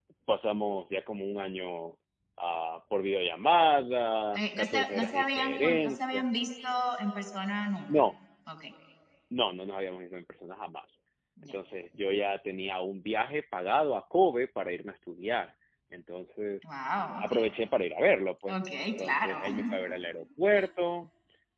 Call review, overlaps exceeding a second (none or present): present